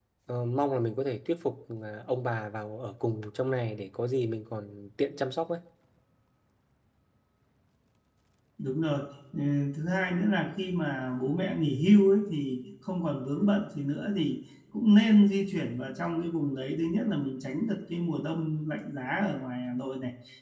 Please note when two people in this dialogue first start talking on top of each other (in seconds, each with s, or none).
none